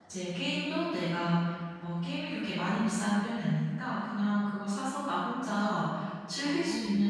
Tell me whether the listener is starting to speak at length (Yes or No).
No